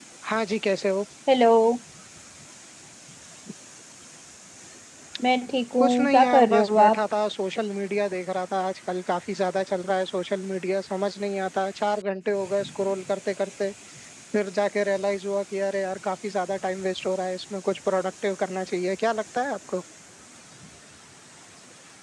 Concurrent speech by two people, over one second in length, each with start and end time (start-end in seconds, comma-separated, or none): 5.8-7.0